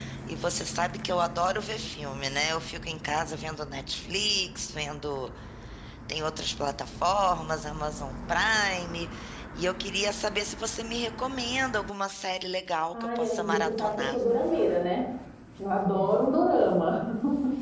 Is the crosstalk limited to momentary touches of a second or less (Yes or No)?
No